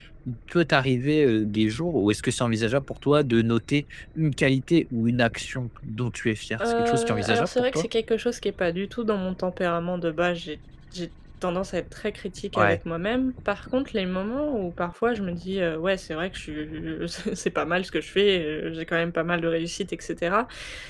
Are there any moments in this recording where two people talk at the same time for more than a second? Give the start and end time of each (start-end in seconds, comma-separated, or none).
6.6-7.8